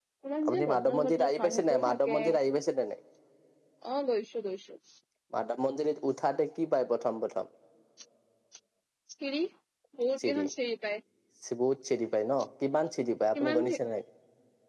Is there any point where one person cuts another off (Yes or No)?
Yes